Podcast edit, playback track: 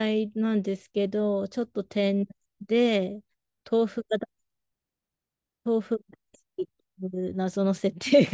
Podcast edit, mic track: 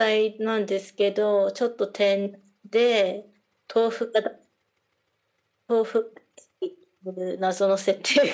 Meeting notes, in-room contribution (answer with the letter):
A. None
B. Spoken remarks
A